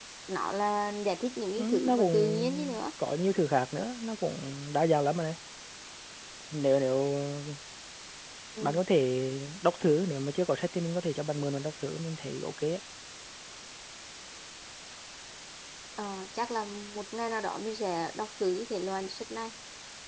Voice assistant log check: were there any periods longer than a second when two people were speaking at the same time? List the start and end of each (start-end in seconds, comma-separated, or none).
1.6-2.8